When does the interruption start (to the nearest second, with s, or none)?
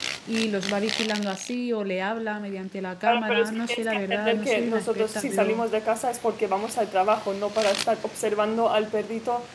3 s